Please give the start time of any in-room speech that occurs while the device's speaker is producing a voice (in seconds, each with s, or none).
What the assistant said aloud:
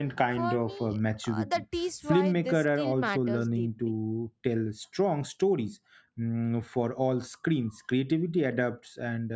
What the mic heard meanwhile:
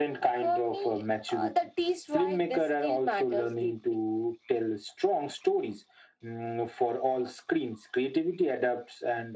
none